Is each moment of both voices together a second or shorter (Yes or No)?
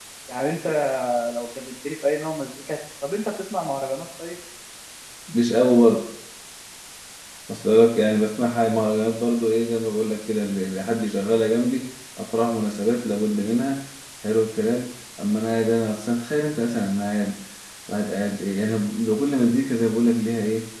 Yes